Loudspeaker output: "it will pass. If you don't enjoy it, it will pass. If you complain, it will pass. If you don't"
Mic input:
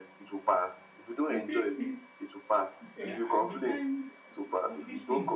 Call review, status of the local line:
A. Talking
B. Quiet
A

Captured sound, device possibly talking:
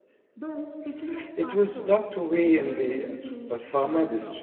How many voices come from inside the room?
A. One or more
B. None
A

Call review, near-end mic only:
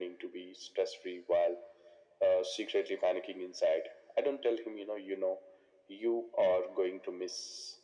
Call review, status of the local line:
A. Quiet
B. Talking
A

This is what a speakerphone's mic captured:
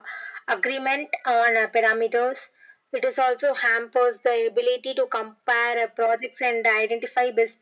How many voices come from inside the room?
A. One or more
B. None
B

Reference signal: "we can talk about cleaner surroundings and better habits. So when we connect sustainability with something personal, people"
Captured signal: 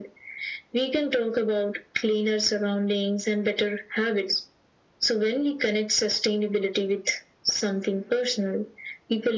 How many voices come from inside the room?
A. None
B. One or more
A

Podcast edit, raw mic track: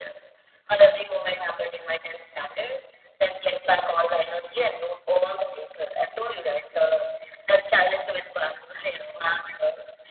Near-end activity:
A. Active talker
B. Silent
B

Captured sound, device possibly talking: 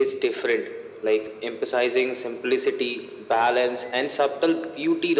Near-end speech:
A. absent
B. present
A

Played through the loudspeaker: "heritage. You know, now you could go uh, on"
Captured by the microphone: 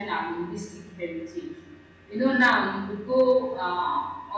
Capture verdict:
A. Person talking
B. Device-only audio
B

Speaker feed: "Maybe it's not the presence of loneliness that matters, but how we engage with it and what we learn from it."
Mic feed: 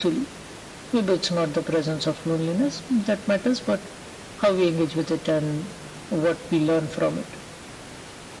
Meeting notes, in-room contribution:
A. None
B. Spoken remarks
A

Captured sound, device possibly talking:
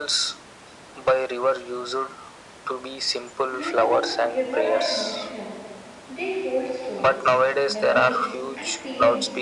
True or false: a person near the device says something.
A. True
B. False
A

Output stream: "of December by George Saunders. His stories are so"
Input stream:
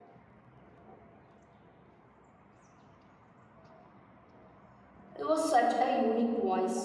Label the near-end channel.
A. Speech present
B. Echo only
A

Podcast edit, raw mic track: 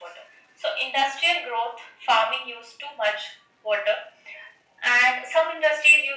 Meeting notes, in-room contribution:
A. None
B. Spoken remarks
A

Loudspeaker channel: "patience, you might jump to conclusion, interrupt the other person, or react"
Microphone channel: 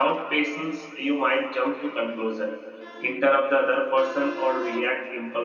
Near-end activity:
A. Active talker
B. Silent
B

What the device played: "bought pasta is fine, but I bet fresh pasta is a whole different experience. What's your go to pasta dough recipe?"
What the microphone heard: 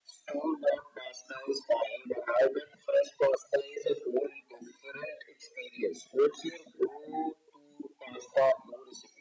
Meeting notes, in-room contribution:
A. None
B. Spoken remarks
A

